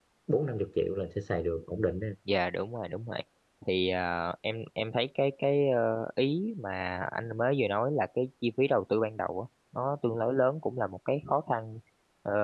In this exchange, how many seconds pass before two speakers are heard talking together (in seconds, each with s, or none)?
none